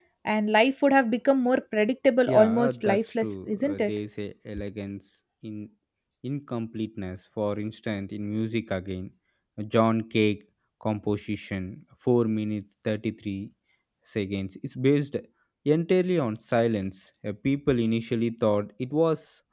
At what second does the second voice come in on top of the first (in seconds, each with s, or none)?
2.3 s